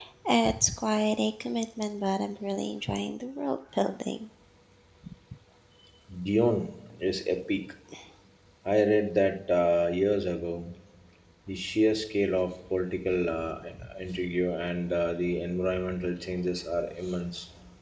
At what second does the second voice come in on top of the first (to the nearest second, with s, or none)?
none